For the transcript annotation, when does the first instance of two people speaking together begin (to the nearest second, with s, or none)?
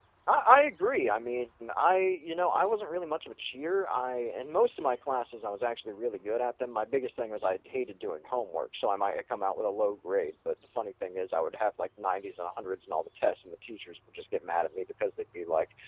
none